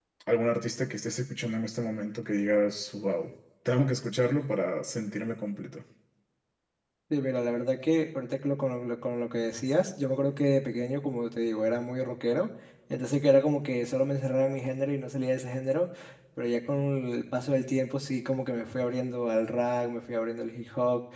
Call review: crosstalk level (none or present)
none